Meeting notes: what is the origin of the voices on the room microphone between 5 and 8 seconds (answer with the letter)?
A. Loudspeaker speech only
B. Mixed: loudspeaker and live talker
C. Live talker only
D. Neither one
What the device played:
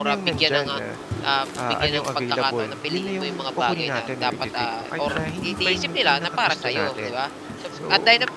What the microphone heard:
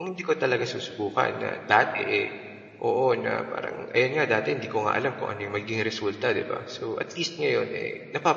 C